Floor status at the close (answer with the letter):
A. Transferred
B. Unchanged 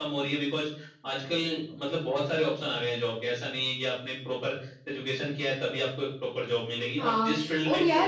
A